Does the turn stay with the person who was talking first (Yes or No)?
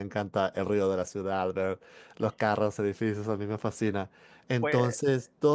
Yes